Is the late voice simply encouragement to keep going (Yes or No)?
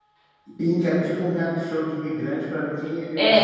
No